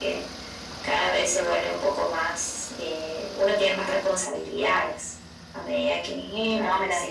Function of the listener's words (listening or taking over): taking over